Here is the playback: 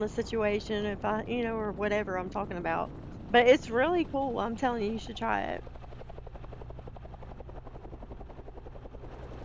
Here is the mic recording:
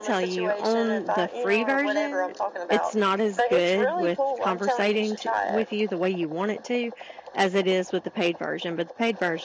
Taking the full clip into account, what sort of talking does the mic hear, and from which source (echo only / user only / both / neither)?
both